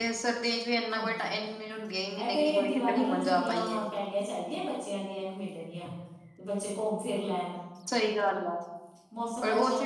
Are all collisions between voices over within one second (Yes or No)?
No